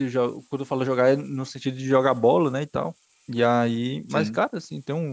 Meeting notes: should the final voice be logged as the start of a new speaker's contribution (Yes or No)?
No